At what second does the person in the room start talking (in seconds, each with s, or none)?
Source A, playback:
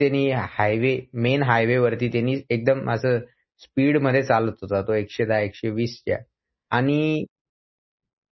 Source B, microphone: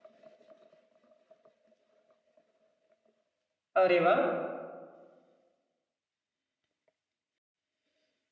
3.8 s